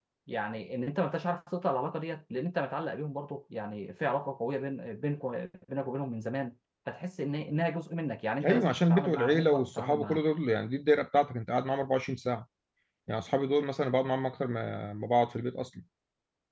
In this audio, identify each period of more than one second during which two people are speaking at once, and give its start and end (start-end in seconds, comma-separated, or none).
8.4-10.2